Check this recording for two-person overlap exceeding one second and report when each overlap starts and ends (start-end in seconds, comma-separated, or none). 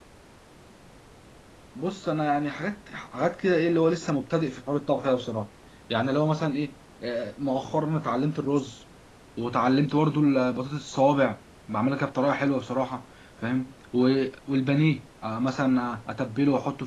none